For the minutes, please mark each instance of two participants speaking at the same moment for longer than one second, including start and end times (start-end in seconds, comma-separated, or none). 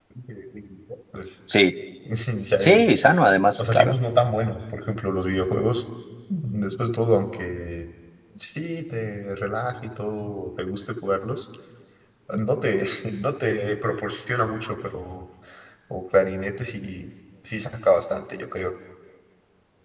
none